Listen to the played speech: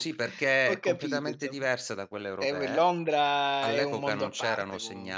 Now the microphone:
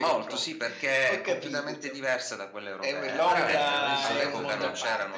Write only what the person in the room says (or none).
Veramente, mai visto una cosa del genere.